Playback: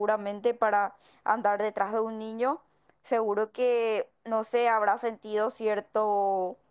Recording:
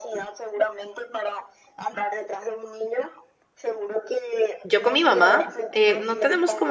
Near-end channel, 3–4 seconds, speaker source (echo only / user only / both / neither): echo only